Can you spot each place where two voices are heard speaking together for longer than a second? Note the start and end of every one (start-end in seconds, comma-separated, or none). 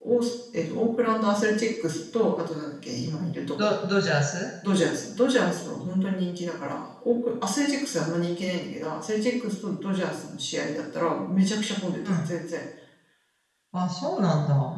none